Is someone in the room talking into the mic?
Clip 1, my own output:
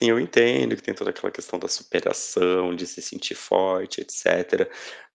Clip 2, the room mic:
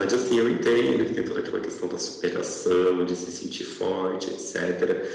No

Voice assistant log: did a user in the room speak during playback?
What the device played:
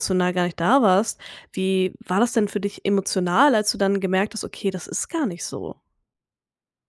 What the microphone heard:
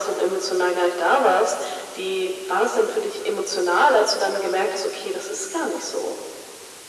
No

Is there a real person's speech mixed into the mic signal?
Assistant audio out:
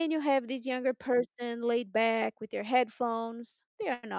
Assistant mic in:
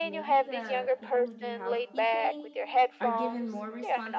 Yes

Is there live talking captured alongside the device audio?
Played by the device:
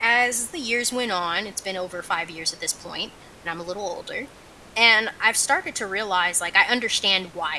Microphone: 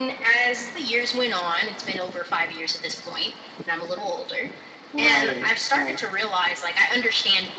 Yes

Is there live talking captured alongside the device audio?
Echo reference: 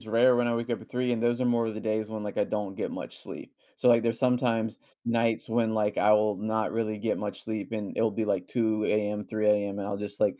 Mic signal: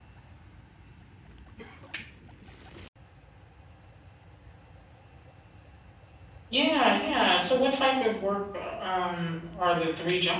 Yes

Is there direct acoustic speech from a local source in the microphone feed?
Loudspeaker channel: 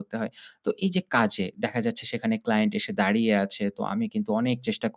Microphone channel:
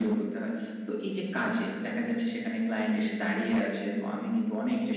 No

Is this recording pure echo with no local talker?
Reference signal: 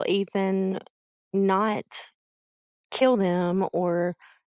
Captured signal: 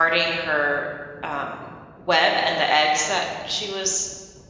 No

